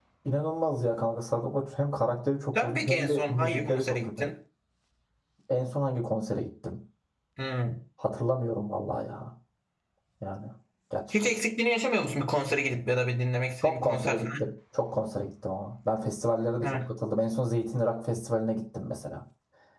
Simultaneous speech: Yes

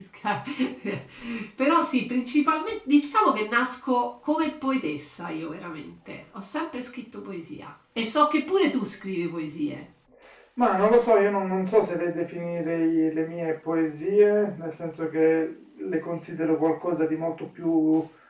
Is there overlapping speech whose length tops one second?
No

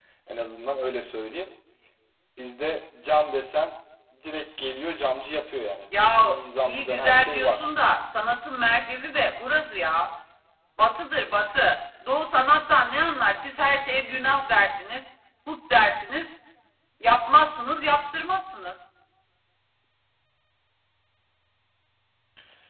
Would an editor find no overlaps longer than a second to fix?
No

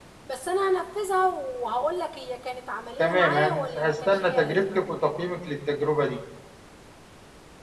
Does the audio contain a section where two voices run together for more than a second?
Yes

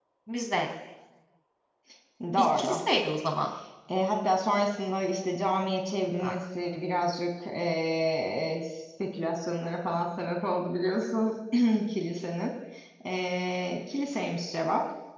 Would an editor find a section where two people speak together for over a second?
No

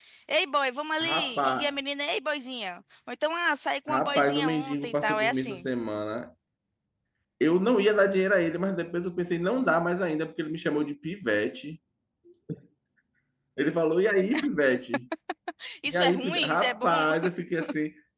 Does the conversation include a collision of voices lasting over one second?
Yes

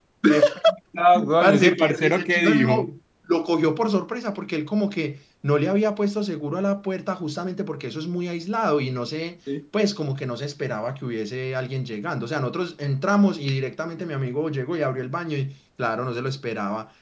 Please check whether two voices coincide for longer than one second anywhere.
Yes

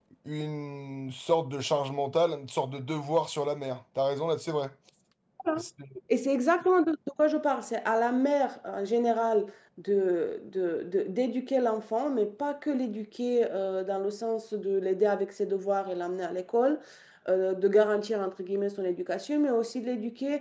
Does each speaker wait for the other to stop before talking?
Yes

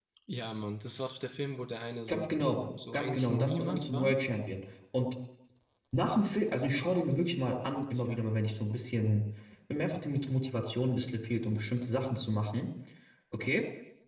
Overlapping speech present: Yes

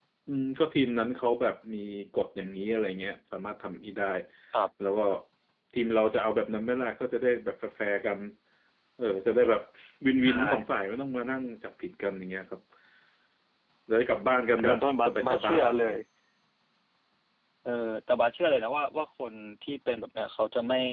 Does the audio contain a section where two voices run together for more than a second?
Yes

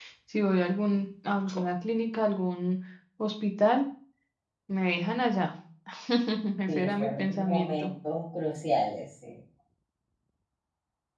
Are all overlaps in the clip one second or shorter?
No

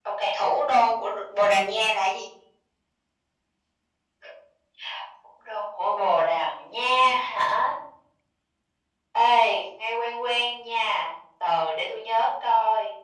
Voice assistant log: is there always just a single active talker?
Yes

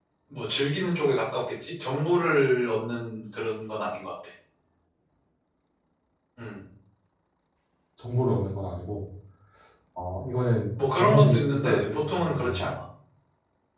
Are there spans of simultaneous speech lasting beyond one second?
Yes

